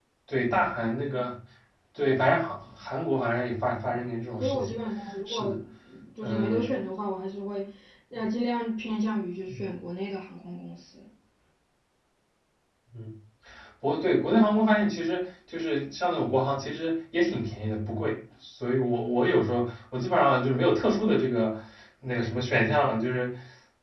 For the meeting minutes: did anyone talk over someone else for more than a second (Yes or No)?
No